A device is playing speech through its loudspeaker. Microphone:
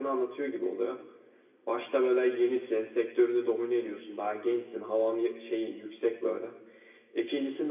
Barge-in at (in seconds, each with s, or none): none